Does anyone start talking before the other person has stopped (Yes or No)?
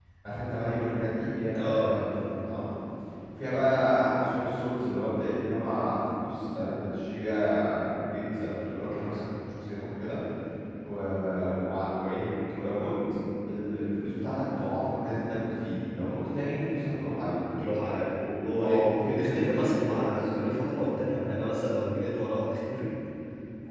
Yes